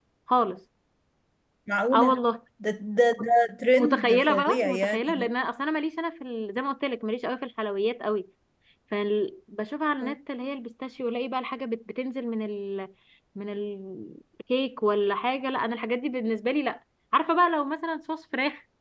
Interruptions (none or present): present